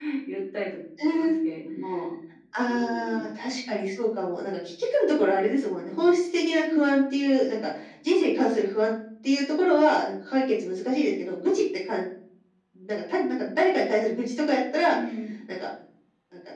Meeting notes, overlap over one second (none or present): none